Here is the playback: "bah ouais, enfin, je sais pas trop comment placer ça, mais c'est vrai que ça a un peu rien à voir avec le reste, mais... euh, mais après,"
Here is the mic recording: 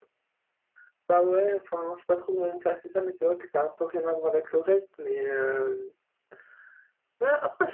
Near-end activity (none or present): none